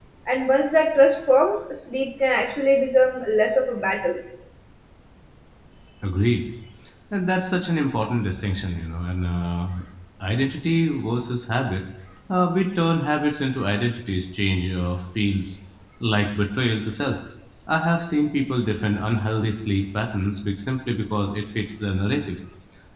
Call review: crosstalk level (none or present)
none